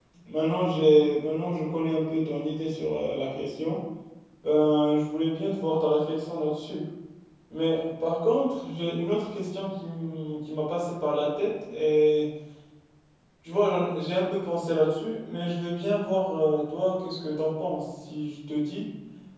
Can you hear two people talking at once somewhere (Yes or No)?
No